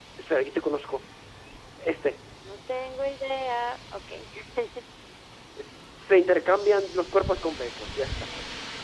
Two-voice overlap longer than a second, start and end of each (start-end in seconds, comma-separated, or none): none